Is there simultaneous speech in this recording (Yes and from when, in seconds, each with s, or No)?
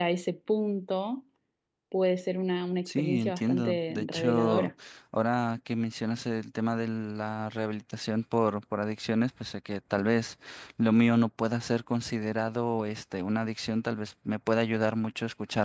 Yes, from 2.9 s